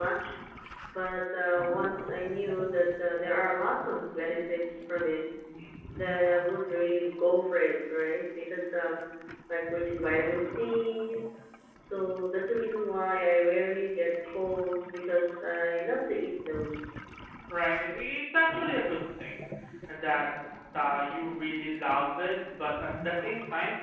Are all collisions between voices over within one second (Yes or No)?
Yes